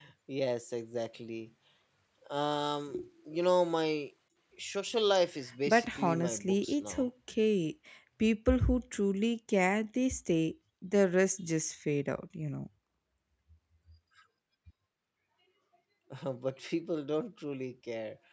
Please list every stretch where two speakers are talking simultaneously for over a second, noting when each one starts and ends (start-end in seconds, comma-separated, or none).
5.7-7.0